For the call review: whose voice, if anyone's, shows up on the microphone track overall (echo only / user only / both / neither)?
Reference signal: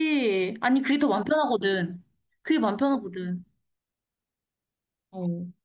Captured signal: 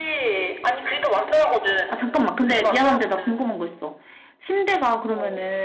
both